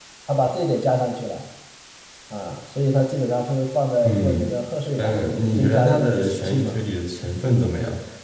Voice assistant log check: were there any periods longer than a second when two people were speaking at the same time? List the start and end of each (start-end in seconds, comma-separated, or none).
5.0-6.8